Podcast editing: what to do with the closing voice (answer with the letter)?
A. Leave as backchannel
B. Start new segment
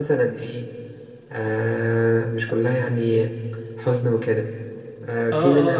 B